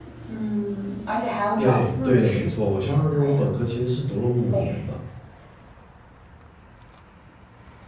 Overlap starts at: 1.6 s

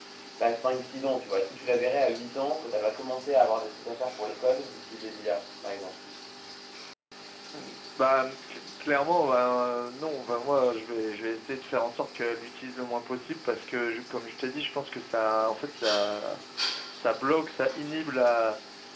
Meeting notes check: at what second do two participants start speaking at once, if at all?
none

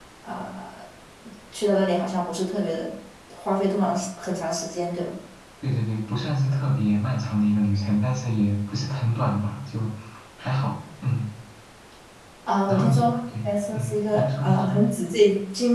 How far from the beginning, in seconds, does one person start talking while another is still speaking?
12.7 s

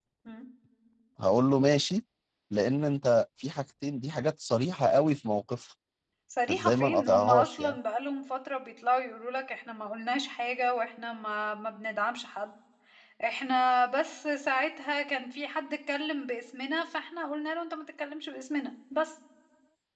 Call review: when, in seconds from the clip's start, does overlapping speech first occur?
6.5 s

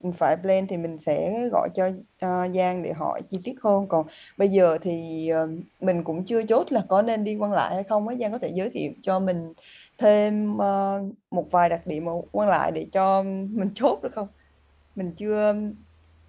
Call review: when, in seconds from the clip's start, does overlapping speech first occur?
none

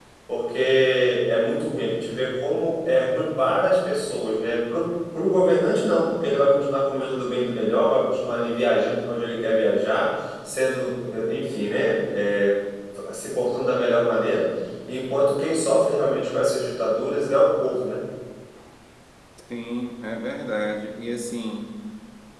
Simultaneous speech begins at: none

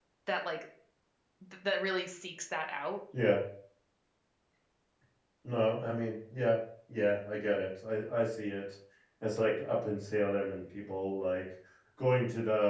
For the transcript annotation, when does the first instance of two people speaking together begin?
none

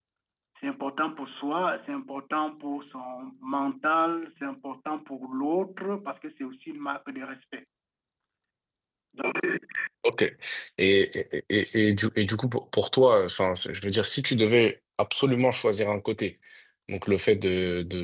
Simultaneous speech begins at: none

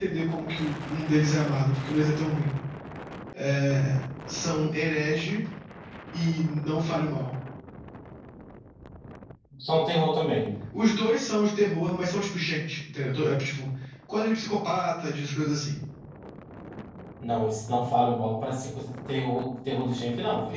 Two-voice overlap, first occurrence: none

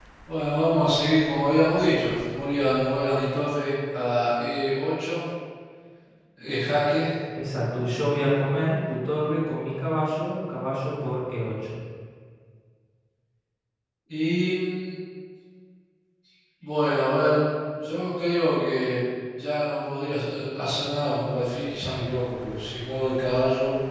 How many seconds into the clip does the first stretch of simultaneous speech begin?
none

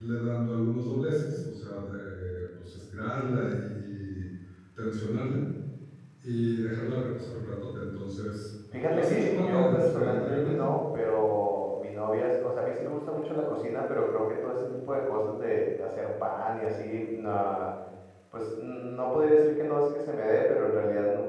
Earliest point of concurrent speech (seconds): 8.7 s

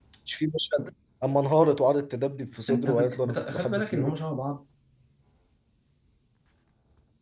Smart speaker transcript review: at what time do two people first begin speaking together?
2.7 s

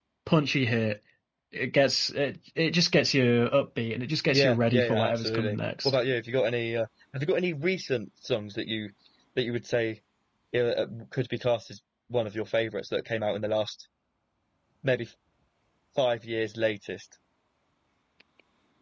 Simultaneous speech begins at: 4.3 s

